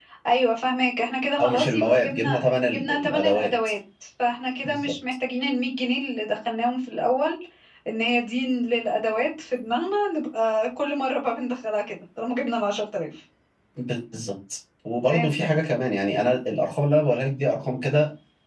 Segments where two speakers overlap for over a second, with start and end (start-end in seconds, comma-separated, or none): 1.4-3.5